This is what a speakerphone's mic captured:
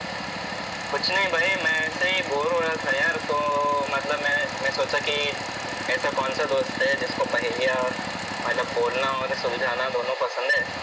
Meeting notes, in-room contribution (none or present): none